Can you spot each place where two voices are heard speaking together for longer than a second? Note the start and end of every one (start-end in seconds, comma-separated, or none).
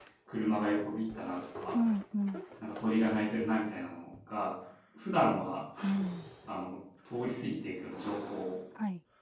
none